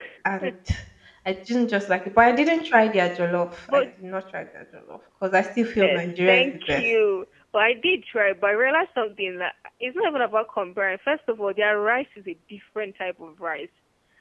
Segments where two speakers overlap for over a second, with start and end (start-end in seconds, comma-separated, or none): 5.7-6.9